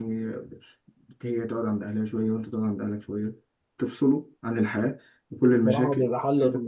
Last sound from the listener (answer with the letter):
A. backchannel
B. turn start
B